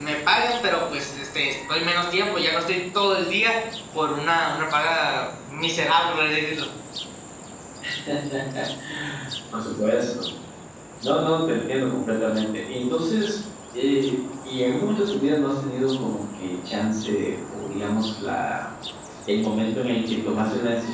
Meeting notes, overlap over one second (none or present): none